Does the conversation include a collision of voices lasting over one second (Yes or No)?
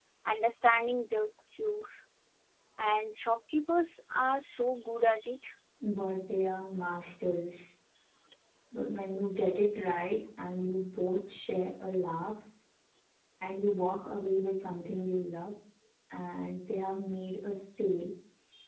No